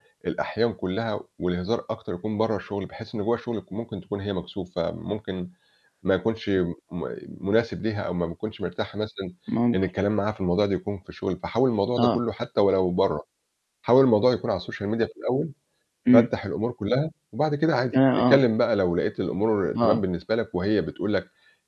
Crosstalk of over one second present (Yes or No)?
No